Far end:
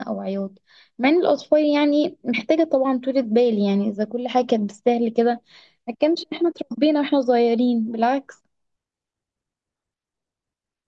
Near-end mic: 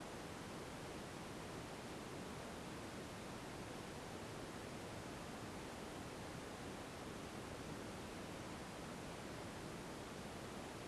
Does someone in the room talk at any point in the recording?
No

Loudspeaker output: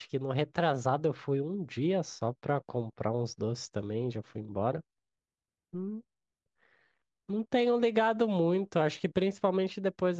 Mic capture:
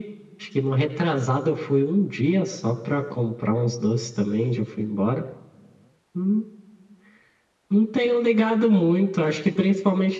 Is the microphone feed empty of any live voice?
Yes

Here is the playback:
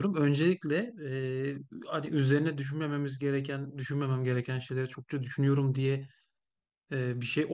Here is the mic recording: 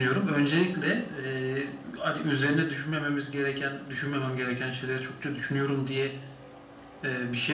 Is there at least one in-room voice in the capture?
No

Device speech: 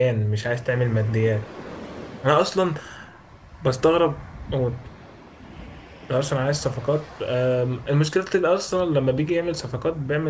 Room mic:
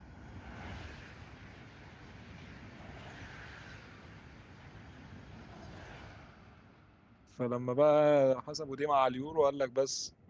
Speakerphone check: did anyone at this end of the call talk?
Yes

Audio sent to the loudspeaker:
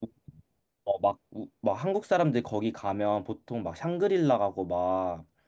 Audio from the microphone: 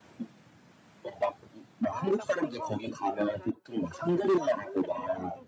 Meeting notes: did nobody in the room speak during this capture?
No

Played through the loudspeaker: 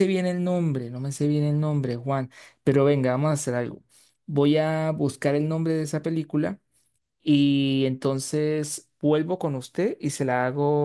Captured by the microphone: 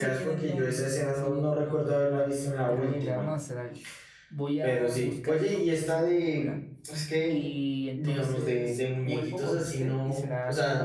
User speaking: Yes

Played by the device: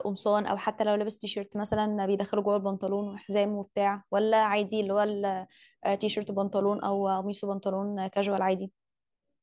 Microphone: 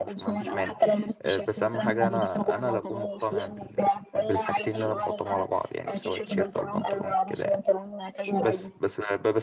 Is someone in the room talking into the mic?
Yes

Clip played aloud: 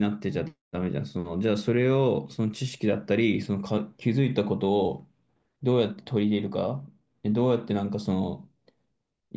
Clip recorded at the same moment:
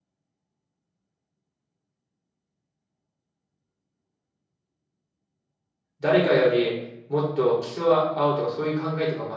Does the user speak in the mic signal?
Yes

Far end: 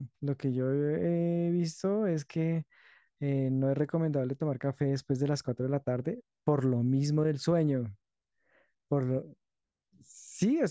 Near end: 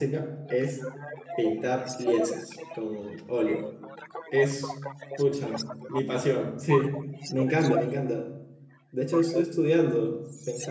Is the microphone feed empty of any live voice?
No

